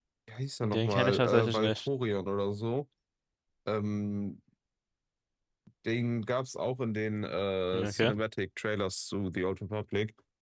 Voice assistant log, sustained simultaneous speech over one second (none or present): present